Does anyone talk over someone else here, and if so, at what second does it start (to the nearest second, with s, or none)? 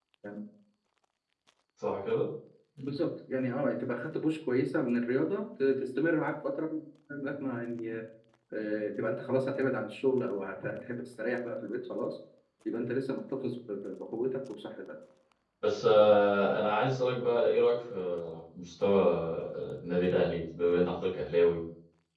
none